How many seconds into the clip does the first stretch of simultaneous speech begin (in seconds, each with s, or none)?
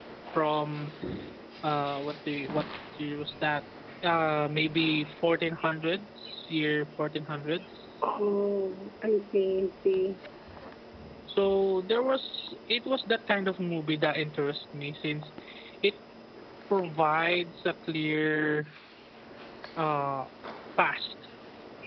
none